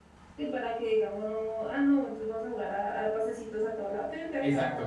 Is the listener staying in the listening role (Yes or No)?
No